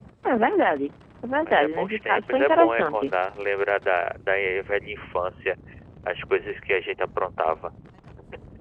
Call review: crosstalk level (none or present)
present